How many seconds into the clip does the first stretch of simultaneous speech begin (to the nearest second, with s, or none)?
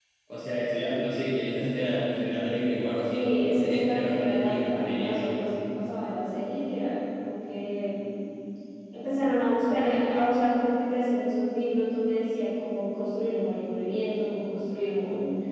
3 s